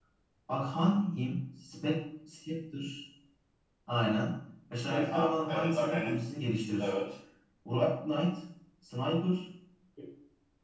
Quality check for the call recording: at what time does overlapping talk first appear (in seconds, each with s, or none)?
4.8 s